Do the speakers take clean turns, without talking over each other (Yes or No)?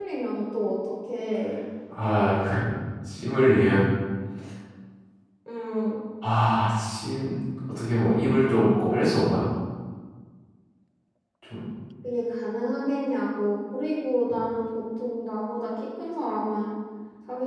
Yes